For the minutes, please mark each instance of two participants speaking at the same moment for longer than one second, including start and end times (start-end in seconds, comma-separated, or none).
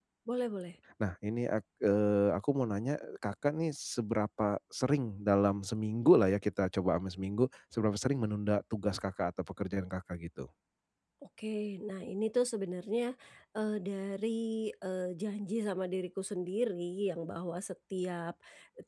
none